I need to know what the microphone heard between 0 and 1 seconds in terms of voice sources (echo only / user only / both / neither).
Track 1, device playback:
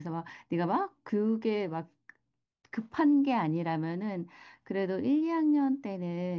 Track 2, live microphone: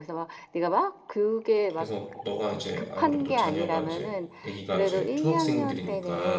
echo only